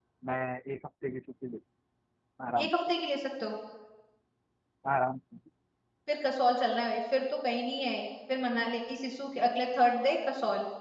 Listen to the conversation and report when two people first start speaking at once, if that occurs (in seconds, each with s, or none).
none